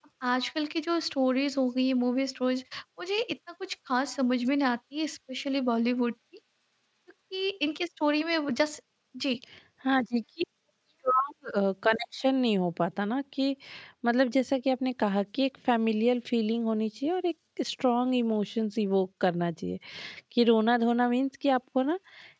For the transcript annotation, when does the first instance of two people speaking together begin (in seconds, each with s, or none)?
none